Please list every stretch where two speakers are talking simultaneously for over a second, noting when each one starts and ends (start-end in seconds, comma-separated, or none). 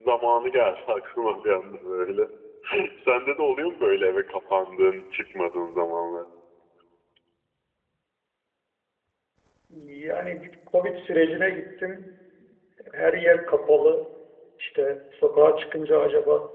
none